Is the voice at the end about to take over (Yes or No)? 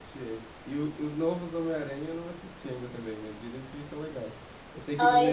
No